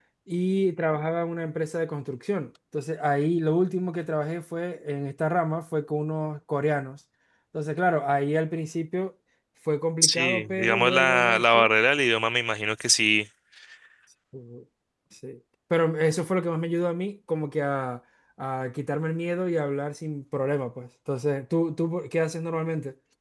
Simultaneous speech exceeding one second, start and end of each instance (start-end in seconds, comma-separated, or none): 10.0-11.7